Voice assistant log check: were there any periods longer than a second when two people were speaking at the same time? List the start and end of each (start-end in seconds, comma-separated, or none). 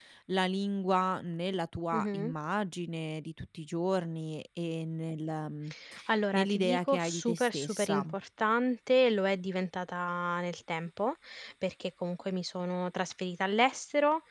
6.3-8.0